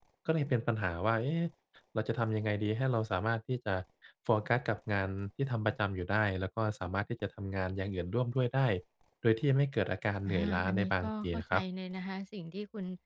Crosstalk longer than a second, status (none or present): present